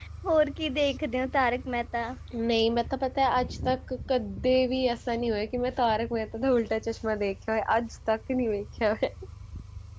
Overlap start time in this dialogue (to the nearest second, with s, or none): none